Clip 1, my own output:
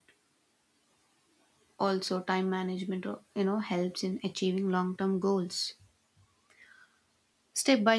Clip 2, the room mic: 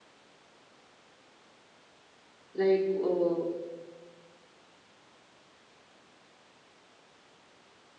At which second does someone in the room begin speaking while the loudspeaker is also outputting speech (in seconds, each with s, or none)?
2.6 s